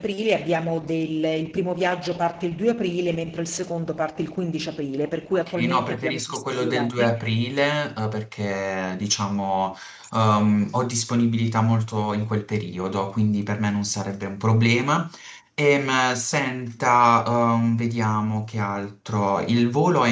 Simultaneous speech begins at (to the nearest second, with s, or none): 5 s